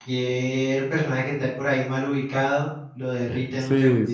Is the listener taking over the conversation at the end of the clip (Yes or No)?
Yes